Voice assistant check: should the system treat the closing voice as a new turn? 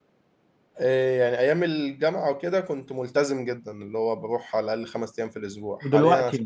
No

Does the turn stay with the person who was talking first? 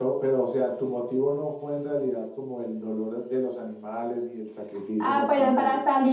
No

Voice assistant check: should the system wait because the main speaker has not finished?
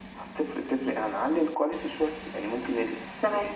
Yes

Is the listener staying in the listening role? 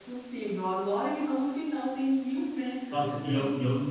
No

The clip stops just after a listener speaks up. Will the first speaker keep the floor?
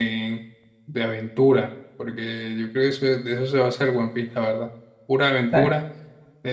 Yes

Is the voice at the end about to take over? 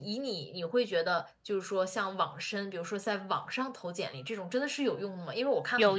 No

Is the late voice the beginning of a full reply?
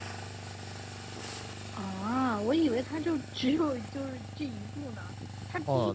Yes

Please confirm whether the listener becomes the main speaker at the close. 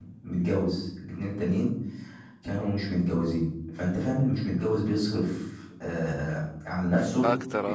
No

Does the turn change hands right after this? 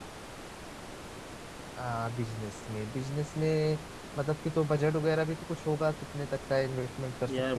Yes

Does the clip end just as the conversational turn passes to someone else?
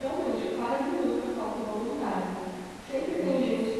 No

